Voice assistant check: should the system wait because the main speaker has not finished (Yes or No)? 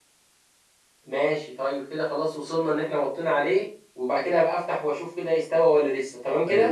No